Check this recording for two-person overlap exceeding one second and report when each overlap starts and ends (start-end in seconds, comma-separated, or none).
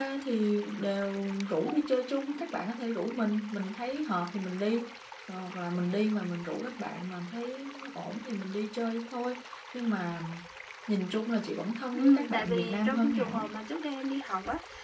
11.9-13.5